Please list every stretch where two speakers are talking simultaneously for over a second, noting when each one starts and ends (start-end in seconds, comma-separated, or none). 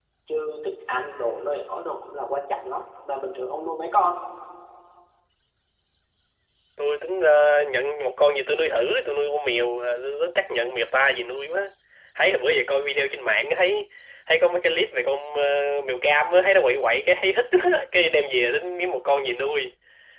none